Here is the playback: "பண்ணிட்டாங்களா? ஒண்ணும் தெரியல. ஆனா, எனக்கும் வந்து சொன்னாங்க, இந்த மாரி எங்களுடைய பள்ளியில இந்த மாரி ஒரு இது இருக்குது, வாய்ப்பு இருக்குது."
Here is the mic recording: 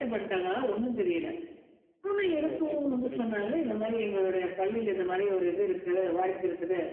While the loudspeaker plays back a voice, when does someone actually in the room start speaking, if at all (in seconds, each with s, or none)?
2.3 s